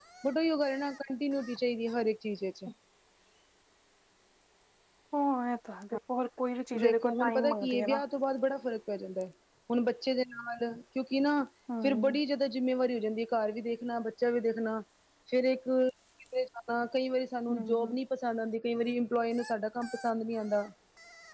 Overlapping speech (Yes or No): Yes